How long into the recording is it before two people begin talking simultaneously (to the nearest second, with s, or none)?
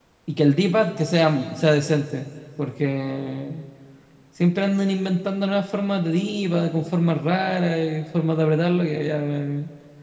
none